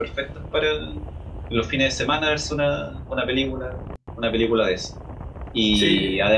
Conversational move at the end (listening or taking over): listening